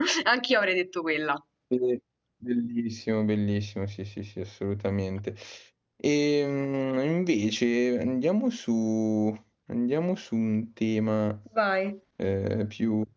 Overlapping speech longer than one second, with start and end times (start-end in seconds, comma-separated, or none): none